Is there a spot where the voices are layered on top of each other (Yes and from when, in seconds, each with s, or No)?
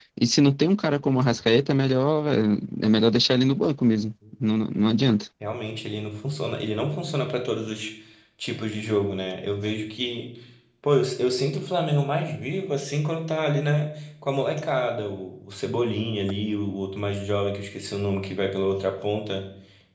No